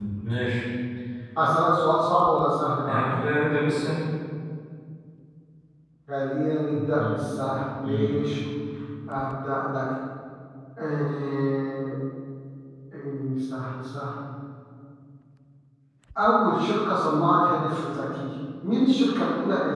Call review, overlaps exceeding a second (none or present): none